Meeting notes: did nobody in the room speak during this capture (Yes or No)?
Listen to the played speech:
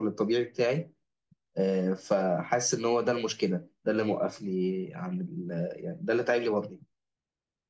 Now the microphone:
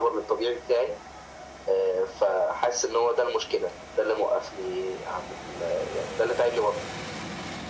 Yes